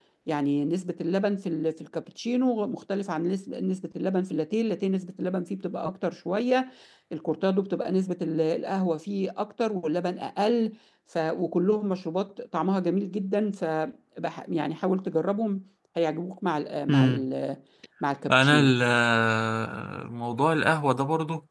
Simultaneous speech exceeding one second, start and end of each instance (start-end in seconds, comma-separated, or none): none